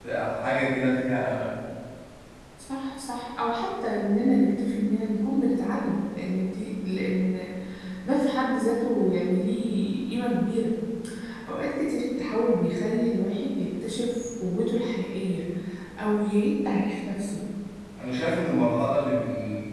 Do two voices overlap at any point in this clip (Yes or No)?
No